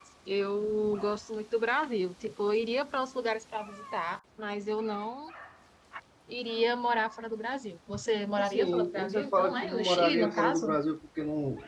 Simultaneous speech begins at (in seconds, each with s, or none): 8.4 s